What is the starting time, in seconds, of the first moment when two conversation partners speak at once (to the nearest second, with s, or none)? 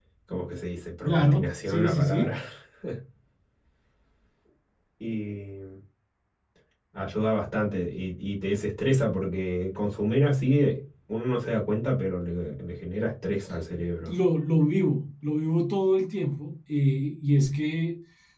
1 s